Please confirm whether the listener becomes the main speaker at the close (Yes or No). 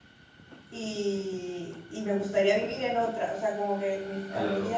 No